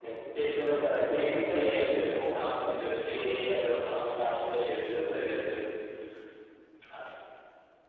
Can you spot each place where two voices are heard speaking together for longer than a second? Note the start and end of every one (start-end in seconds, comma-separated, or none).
1.0-2.5